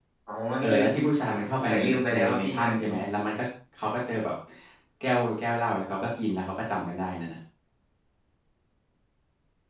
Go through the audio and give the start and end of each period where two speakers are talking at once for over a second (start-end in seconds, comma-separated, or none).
1.6-2.9